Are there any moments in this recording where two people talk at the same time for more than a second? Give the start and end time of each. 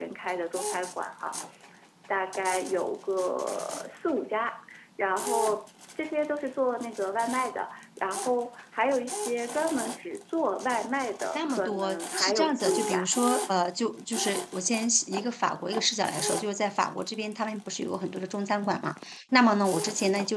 11.4-13.1

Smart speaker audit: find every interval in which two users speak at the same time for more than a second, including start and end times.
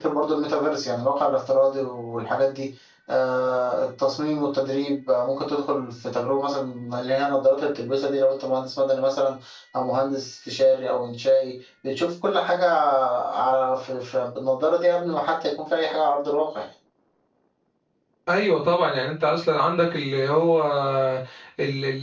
none

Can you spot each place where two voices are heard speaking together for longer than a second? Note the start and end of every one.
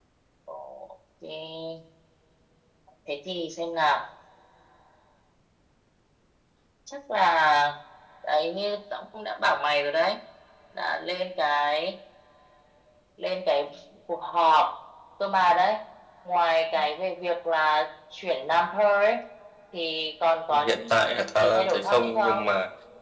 21.2-22.5

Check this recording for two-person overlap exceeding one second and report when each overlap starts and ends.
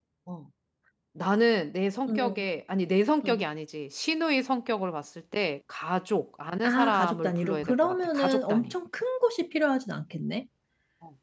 6.6-8.7

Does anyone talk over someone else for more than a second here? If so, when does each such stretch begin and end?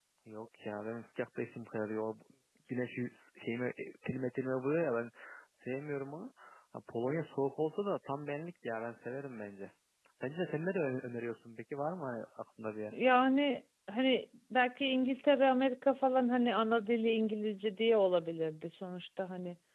none

